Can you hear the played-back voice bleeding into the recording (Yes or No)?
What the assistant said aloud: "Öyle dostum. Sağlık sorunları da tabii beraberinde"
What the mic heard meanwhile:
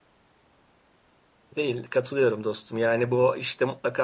No